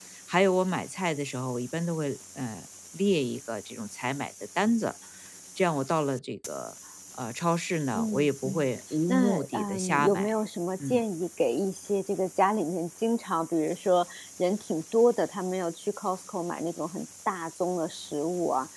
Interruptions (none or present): present